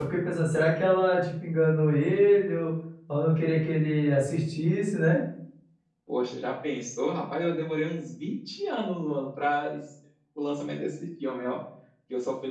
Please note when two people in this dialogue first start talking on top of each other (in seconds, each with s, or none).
none